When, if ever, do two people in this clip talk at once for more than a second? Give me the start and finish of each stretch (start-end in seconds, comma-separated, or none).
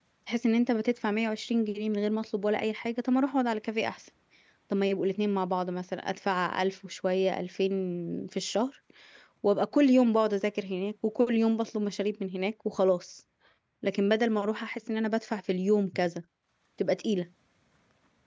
none